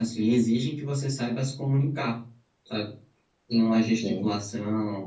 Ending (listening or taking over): listening